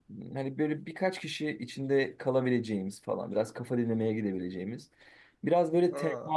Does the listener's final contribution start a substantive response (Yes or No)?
No